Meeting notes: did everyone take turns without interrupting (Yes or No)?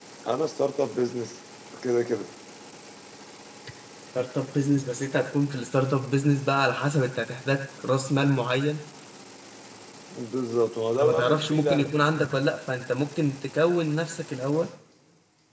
No